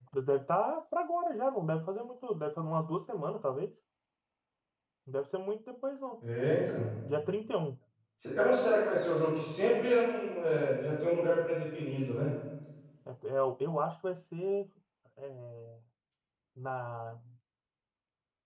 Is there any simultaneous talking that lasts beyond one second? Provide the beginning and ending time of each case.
none

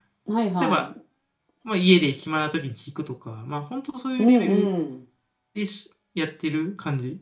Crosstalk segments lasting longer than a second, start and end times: none

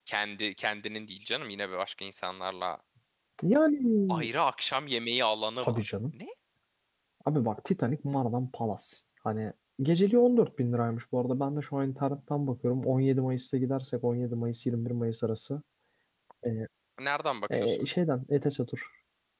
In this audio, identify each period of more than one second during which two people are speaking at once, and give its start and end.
none

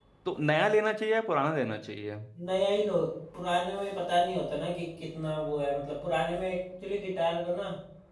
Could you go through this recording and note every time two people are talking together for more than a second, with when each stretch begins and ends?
none

